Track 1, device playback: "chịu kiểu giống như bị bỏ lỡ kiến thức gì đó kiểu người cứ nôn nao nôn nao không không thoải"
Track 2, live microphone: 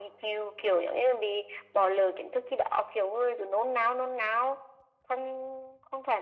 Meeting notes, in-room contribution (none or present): none